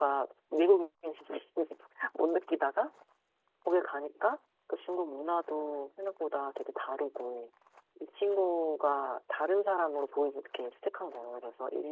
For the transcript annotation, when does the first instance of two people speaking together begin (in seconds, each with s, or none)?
none